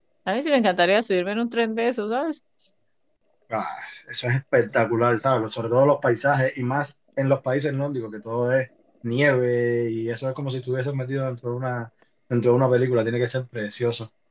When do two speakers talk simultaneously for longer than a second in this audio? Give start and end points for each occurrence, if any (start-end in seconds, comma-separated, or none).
none